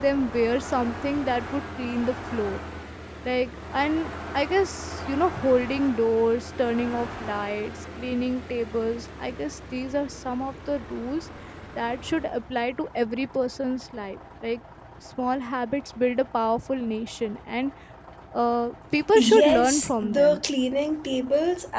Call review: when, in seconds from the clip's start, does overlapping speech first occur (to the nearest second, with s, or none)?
19 s